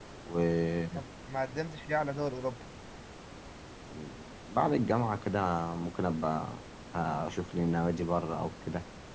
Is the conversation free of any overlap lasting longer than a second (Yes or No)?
Yes